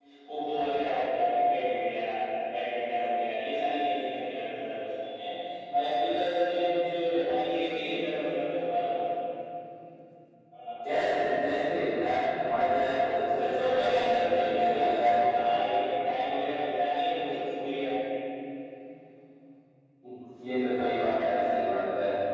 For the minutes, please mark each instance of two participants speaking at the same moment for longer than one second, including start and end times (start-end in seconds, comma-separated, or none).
13.4-15.1